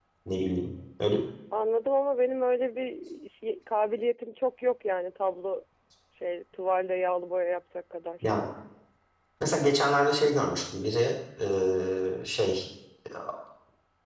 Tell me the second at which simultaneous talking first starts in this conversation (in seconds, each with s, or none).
none